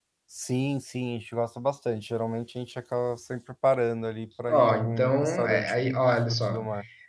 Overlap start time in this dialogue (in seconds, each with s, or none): 4.5 s